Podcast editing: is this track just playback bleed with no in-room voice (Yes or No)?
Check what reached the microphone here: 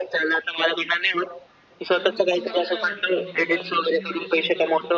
No